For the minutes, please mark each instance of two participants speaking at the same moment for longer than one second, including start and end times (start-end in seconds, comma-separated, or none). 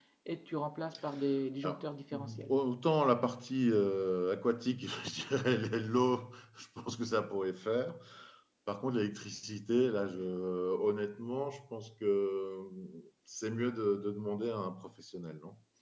none